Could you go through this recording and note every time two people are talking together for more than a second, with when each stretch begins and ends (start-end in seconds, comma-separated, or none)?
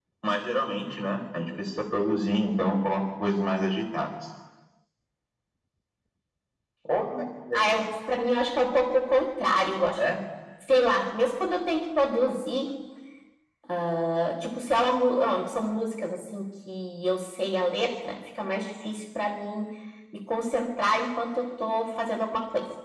none